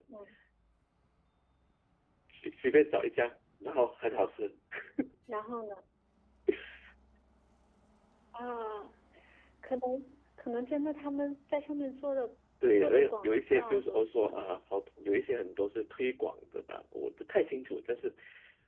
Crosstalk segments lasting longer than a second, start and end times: 12.8-14.4

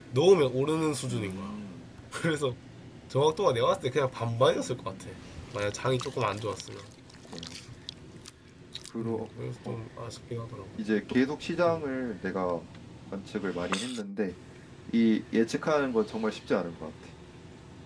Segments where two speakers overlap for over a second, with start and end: none

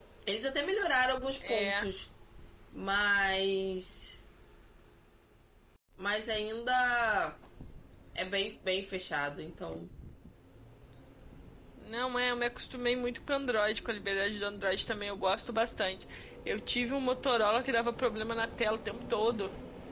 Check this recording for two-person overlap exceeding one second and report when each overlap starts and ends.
none

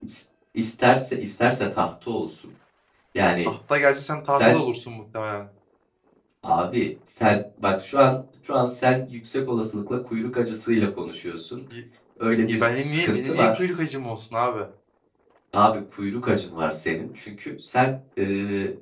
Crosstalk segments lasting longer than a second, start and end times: 12.4-13.6

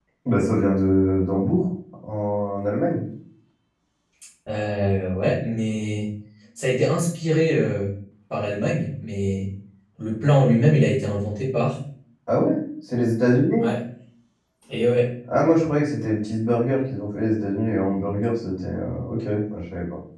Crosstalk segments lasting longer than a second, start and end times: none

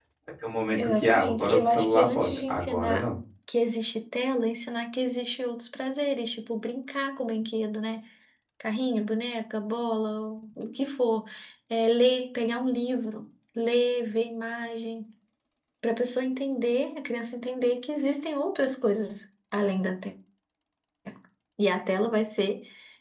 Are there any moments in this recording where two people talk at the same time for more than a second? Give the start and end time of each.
0.7-3.0

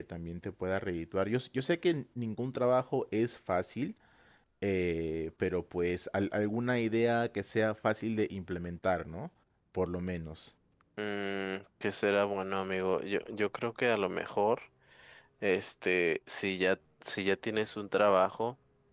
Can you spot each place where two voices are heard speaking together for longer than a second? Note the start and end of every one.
none

